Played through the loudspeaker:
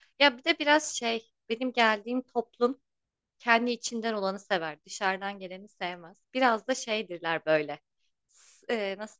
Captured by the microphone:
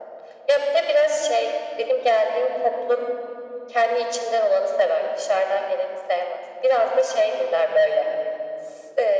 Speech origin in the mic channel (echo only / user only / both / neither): echo only